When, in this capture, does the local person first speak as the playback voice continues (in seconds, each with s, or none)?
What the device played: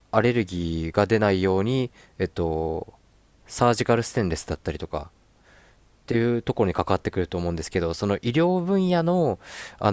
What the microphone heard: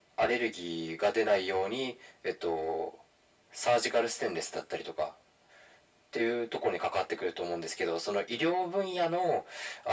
none